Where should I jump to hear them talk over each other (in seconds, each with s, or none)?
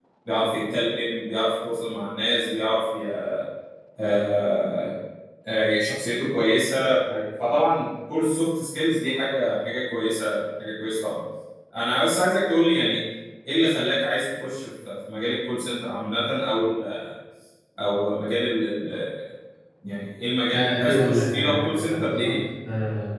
20.5 s